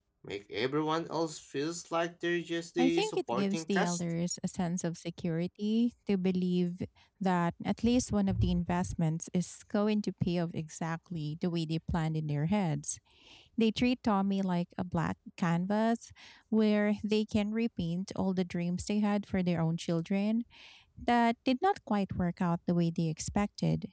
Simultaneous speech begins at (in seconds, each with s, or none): 2.8 s